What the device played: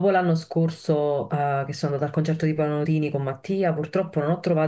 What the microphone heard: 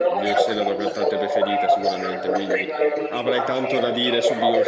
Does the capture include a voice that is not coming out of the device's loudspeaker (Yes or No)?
Yes